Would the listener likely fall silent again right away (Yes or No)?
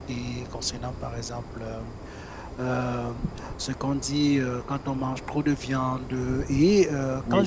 Yes